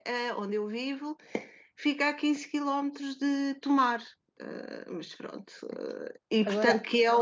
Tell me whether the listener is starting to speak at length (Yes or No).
No